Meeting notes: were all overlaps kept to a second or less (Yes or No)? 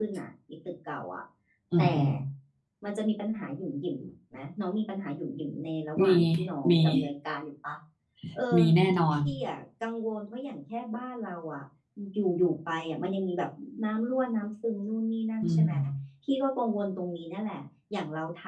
Yes